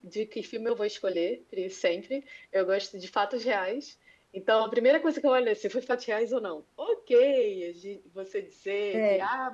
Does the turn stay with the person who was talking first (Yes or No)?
Yes